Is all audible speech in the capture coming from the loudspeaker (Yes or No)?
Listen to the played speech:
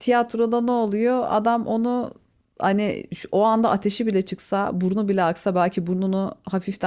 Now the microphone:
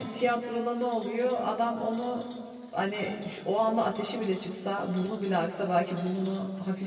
Yes